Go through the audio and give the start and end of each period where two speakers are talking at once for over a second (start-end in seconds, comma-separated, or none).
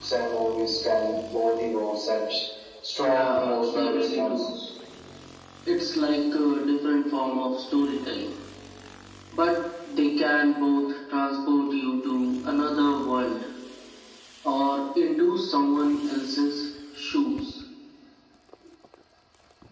3.0-4.4